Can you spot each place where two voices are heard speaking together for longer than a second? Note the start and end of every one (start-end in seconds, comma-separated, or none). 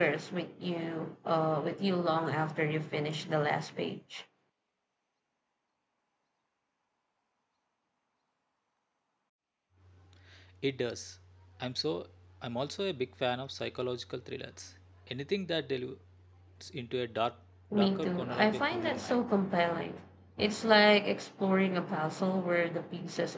17.7-19.2